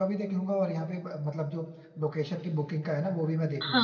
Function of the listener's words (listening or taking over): taking over